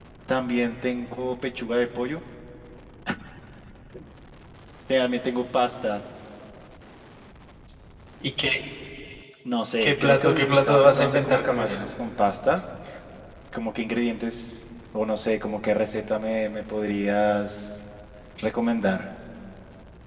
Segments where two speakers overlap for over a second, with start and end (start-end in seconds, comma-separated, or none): 9.8-11.8